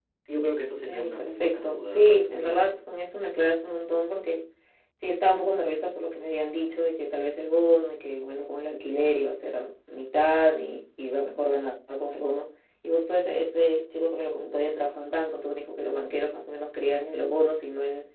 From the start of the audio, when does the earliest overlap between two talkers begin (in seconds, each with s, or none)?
0.9 s